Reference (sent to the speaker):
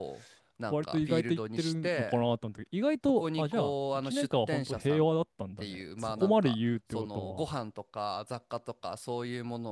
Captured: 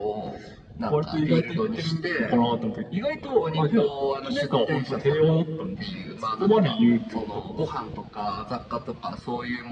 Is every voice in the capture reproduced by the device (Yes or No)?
Yes